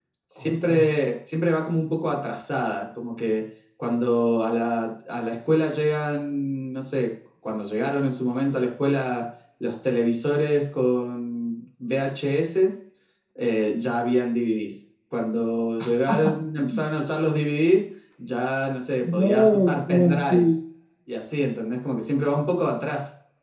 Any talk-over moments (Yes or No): Yes